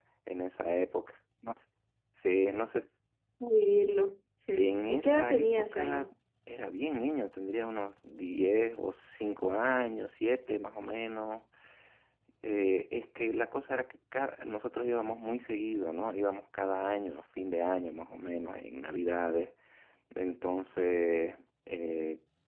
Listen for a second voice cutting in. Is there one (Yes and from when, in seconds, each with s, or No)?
Yes, from 4.6 s